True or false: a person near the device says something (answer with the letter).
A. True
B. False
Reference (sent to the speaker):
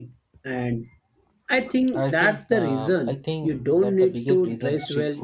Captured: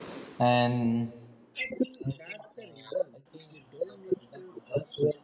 A